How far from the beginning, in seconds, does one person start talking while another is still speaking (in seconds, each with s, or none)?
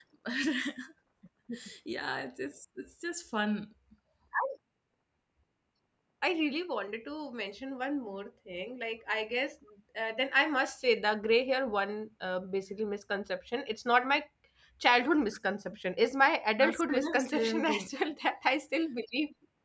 16.6 s